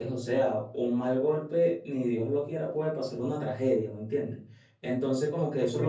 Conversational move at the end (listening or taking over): listening